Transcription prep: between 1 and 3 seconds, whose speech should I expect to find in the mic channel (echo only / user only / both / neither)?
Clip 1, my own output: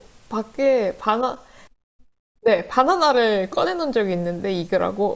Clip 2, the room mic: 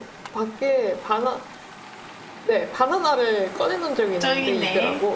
echo only